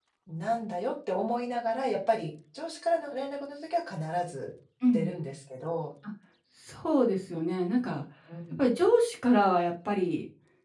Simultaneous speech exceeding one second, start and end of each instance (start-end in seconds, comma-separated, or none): none